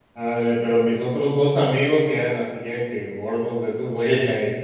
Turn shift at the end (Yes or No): No